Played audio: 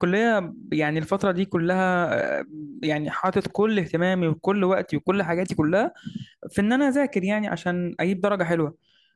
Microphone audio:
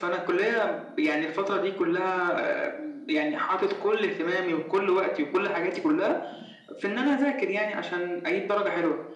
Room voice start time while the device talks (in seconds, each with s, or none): none